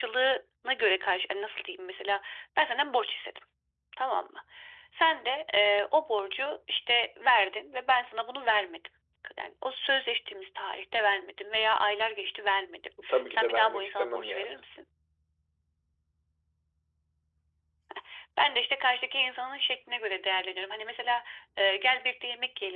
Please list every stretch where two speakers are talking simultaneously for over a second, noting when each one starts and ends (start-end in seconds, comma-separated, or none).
13.3-14.6